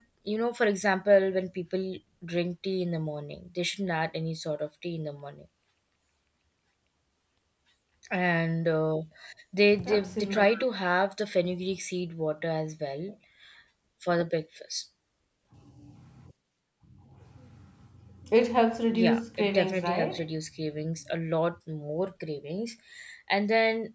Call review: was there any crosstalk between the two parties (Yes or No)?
Yes